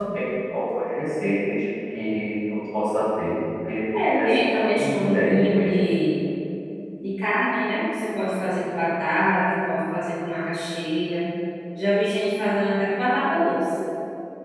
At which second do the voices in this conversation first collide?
3.9 s

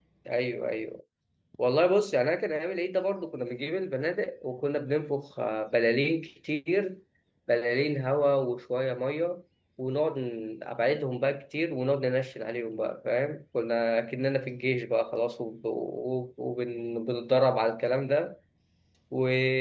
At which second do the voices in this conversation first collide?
none

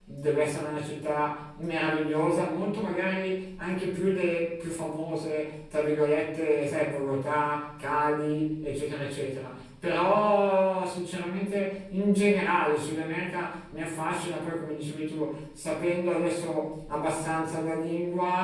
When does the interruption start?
none

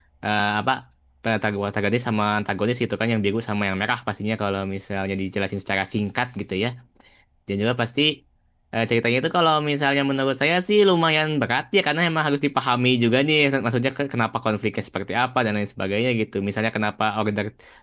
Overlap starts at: none

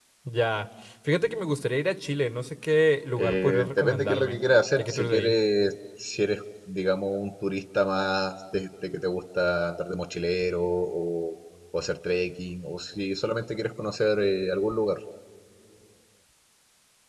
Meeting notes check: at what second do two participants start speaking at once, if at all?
3.2 s

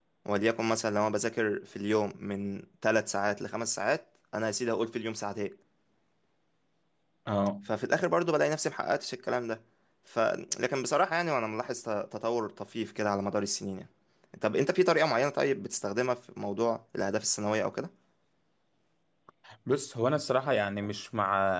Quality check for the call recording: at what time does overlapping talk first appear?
none

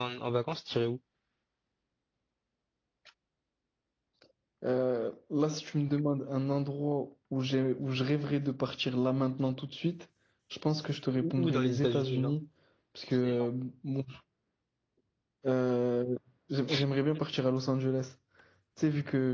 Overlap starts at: 11.1 s

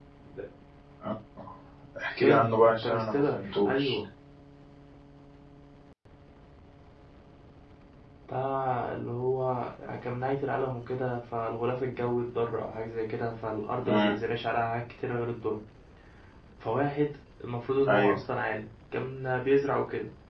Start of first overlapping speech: 2.2 s

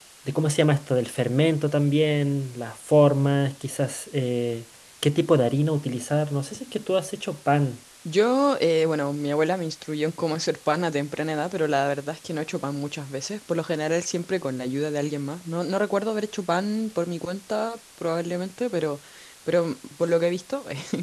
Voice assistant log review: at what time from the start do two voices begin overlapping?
none

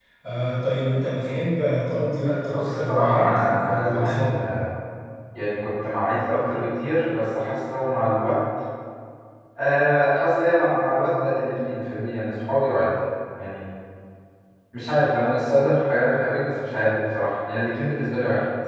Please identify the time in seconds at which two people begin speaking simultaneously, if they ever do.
2.5 s

